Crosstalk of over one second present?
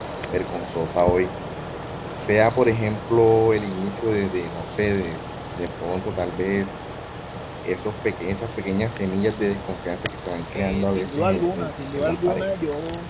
Yes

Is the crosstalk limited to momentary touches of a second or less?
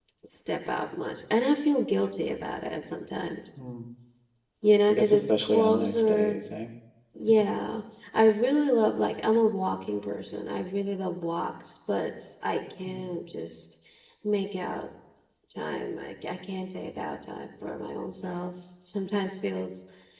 No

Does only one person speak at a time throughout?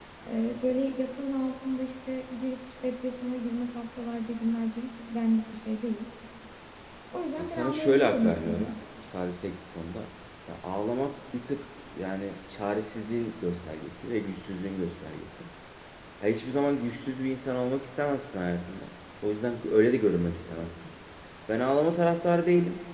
No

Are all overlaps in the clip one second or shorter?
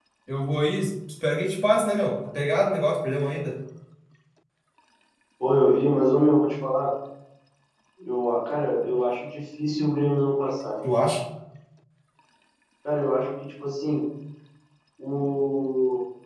Yes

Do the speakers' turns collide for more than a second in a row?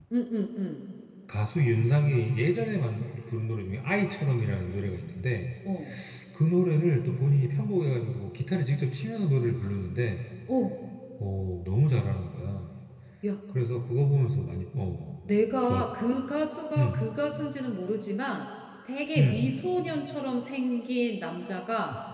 No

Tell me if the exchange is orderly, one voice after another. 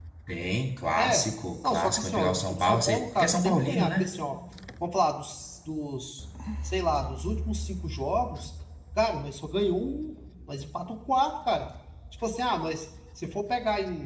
No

